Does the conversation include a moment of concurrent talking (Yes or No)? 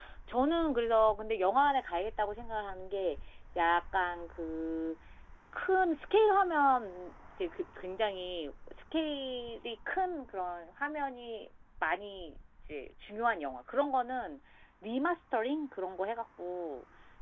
No